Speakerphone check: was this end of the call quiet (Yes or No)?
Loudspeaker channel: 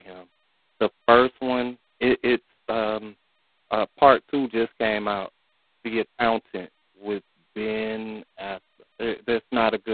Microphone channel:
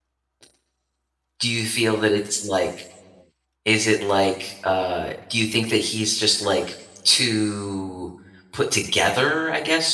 No